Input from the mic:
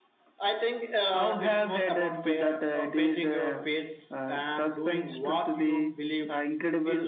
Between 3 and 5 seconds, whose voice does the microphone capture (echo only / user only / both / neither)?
echo only